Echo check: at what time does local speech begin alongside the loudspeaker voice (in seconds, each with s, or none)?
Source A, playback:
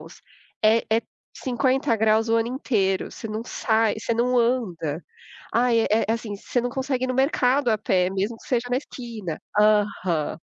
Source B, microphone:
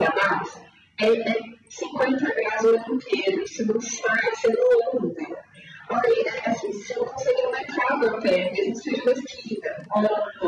none